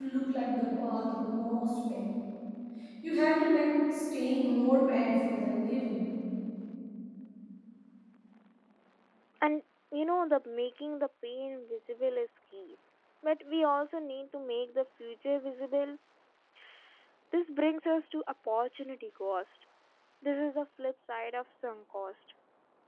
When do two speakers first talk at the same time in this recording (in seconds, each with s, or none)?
none